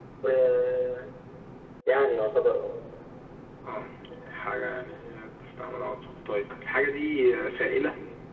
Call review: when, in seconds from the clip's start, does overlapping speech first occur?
none

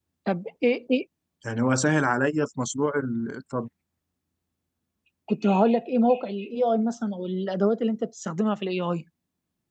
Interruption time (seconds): none

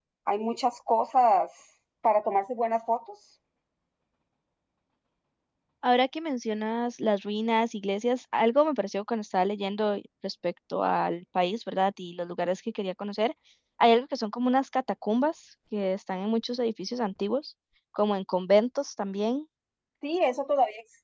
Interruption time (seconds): none

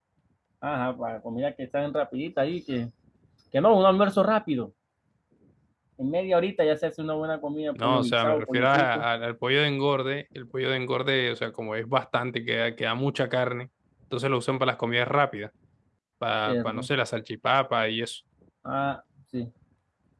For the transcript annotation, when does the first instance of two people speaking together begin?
7.8 s

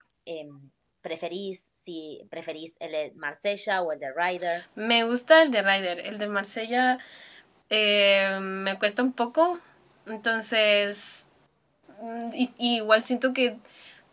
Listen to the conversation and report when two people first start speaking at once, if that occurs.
none

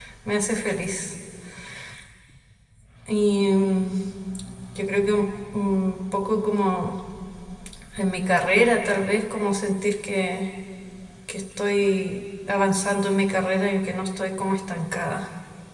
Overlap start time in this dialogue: none

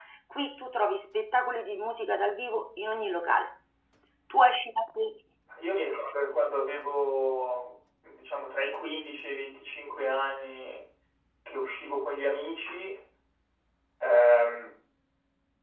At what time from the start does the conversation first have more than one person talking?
none

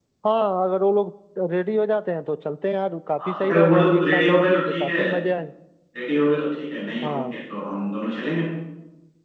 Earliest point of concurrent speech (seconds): 3.2 s

